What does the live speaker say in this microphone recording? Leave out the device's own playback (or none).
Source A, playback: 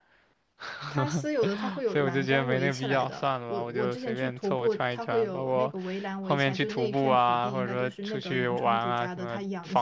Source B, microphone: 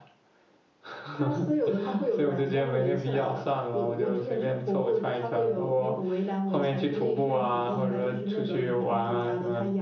none